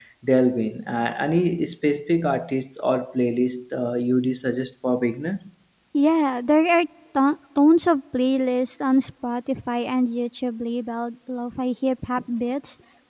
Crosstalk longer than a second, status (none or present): none